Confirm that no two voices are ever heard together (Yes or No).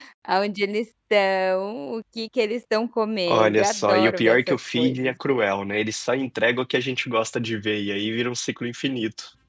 No